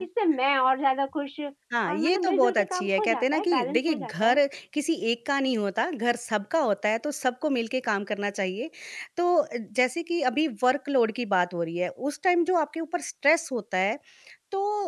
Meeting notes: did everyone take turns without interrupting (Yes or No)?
No